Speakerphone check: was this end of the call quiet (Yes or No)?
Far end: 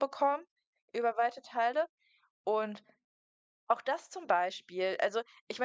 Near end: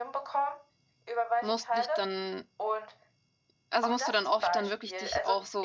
No